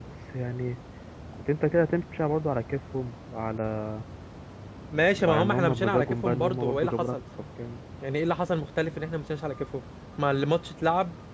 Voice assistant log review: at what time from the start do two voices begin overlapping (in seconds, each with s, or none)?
5.3 s